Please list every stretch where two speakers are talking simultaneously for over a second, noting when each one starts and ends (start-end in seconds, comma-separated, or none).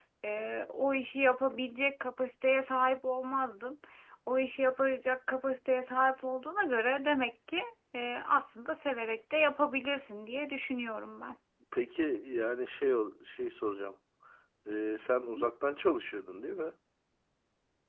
none